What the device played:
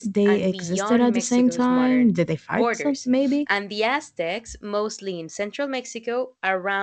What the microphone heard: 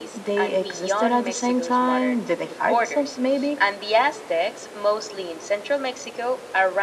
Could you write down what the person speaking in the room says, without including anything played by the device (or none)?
none